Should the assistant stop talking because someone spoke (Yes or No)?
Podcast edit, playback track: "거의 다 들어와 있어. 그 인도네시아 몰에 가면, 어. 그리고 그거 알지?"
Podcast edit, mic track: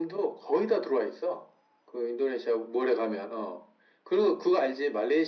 No